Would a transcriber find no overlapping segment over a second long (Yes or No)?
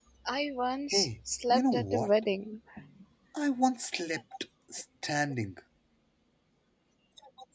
No